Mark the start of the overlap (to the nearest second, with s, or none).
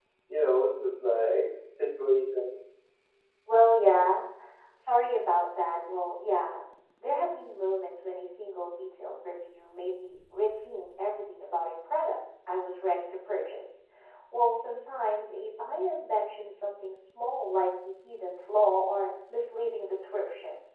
none